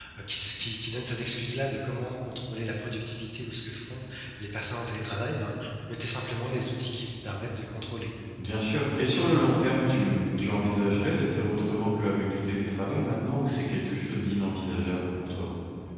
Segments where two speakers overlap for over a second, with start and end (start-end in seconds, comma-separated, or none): none